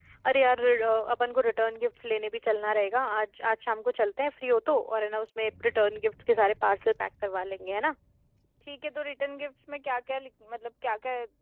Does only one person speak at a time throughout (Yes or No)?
Yes